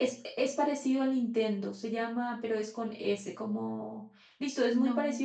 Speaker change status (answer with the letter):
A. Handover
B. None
B